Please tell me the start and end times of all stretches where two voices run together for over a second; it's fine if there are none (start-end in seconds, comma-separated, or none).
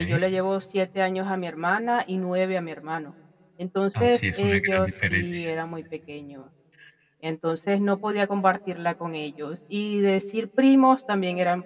4.0-5.5